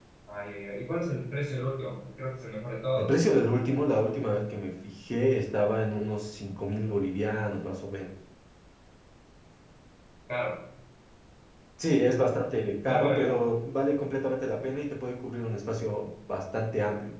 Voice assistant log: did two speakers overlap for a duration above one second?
No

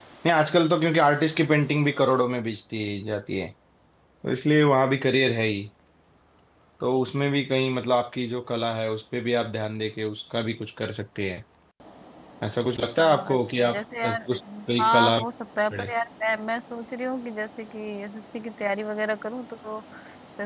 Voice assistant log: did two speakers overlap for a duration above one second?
Yes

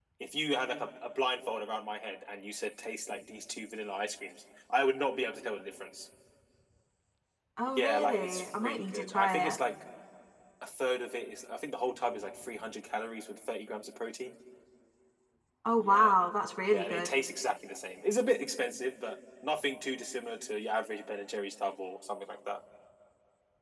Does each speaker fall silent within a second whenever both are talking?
No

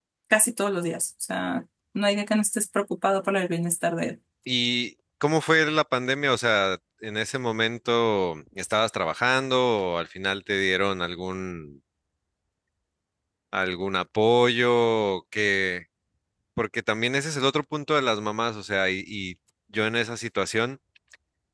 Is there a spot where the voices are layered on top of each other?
No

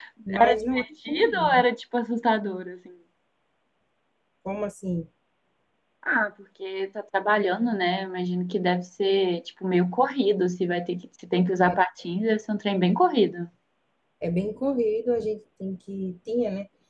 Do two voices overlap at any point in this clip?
Yes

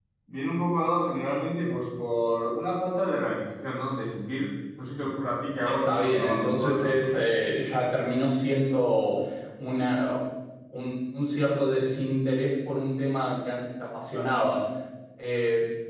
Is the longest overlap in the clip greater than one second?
Yes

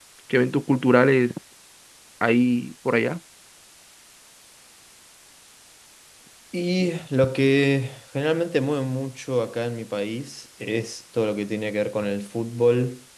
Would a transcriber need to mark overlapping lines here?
No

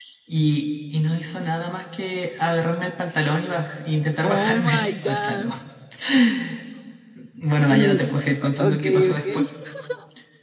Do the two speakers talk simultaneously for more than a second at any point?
Yes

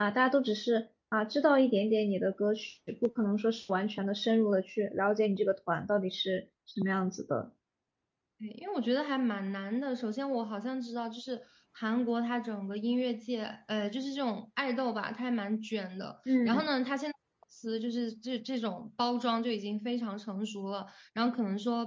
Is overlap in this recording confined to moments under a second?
Yes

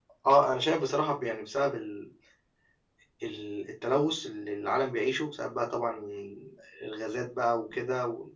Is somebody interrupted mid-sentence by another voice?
No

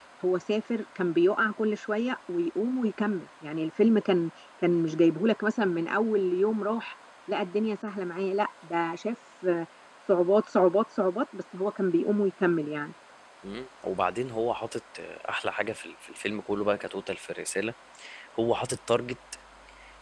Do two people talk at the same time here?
No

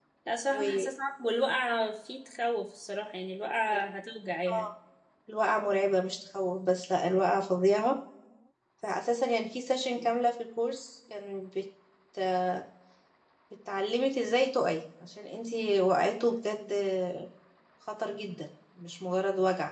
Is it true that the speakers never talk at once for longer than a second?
Yes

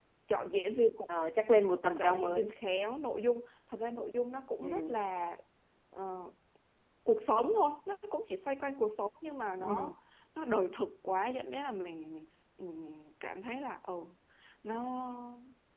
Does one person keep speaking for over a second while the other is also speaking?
No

